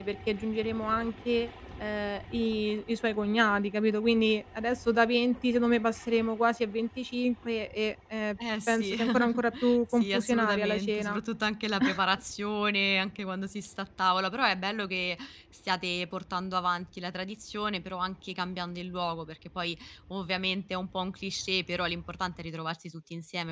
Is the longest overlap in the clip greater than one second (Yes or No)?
Yes